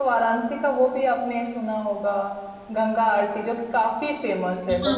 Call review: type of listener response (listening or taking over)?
taking over